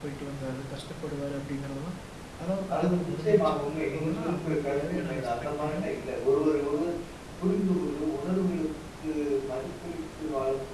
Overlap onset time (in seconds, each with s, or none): 2.7 s